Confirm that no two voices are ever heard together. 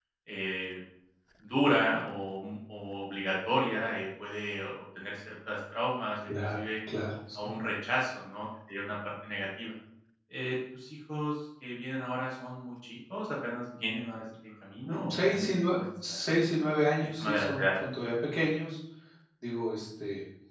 No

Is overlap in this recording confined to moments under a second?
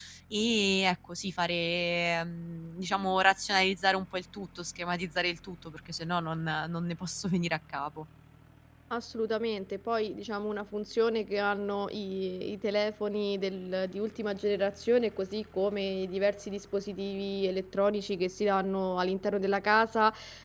Yes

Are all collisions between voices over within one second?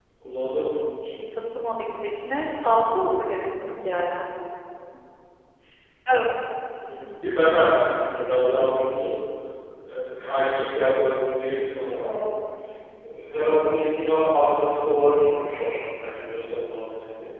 Yes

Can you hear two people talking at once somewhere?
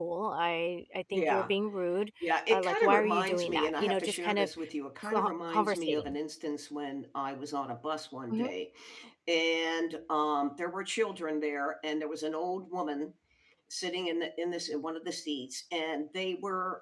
Yes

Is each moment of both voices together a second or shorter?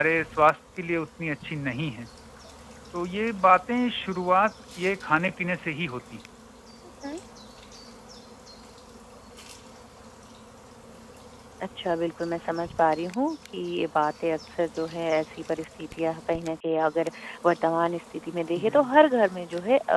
Yes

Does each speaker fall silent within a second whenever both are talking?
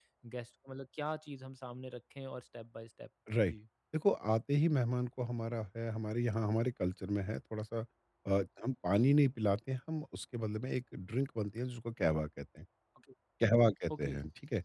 Yes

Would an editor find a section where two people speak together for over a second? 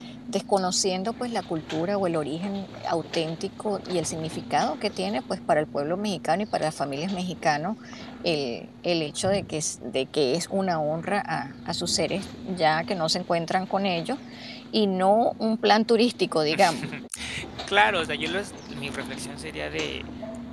No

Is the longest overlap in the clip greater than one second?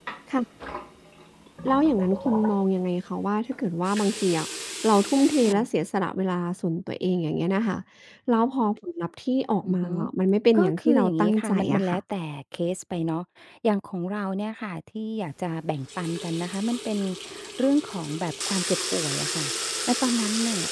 Yes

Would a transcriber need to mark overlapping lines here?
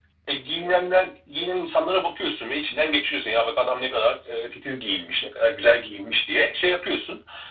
No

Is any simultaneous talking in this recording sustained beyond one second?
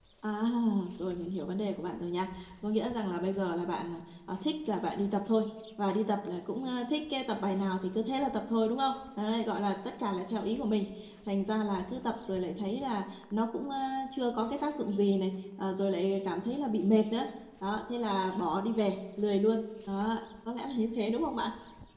No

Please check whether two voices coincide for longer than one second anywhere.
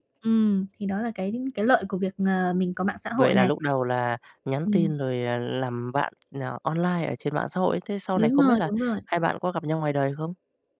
No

